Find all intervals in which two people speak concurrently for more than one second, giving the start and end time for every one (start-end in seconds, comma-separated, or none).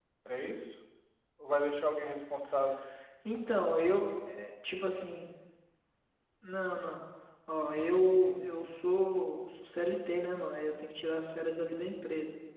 none